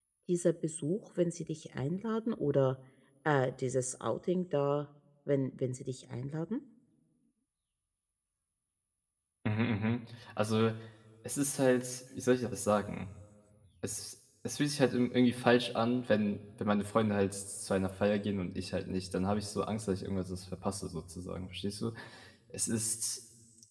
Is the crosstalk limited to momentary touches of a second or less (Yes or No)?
Yes